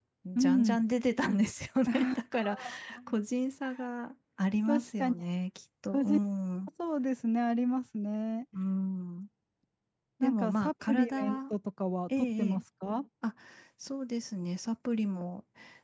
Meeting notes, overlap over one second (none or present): present